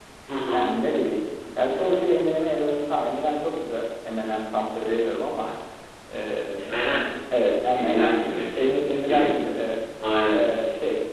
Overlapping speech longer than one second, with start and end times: 7.7-9.3

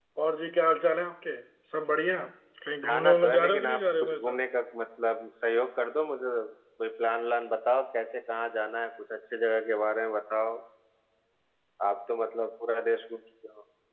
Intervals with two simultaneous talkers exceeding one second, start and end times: 2.8-4.4

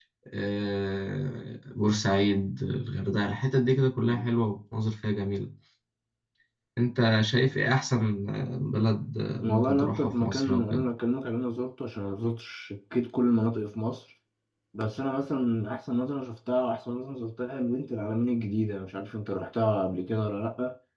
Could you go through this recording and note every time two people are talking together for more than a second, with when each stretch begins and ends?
9.4-10.8

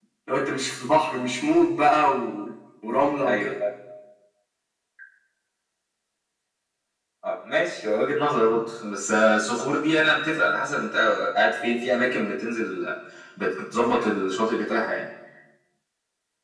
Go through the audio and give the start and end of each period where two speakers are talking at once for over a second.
none

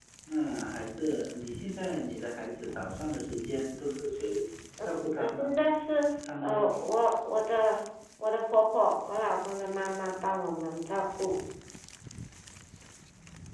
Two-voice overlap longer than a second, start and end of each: none

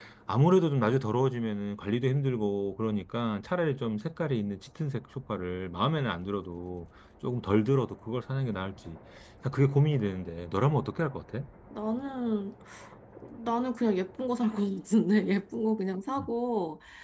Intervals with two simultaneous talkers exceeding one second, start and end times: none

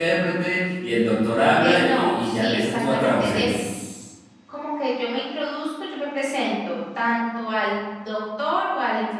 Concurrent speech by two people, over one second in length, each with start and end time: 1.6-3.5

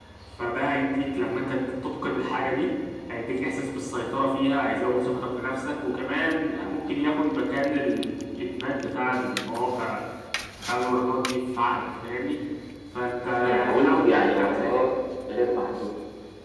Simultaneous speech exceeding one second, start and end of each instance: 13.4-14.8

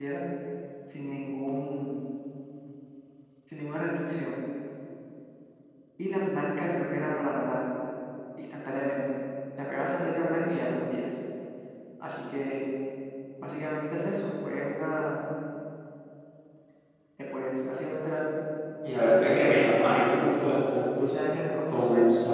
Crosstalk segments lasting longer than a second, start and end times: 19.0-20.3

